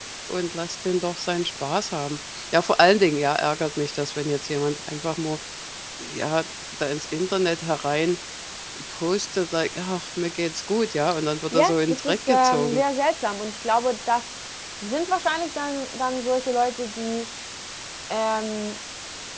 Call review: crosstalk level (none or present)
present